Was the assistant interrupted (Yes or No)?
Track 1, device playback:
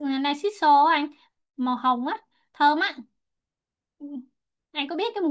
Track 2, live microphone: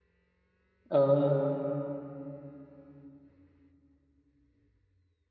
Yes